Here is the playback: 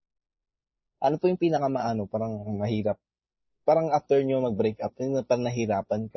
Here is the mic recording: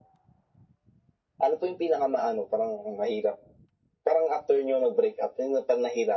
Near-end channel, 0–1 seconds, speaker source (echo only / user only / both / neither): neither